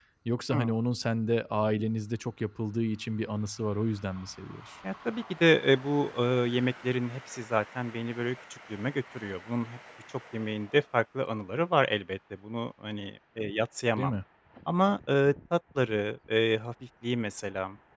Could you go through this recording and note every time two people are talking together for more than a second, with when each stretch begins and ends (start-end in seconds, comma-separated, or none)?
none